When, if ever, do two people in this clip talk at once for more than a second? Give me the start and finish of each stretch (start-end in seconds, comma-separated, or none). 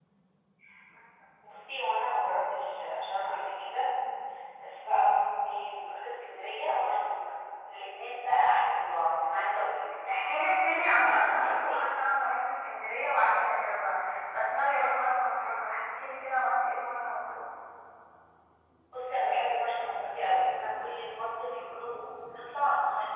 10.5-11.8